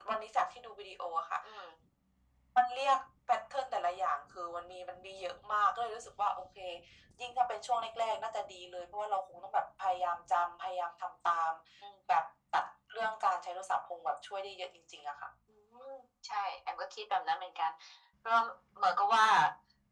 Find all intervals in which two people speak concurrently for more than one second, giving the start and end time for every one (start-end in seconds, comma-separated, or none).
none